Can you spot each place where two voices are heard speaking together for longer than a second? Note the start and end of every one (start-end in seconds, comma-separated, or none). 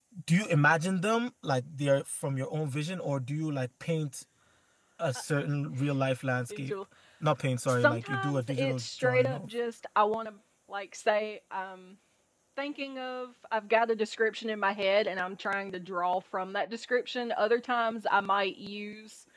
7.8-9.5